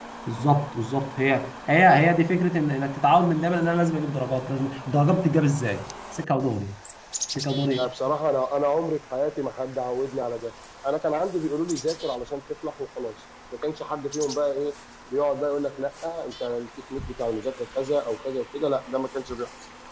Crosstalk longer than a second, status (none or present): none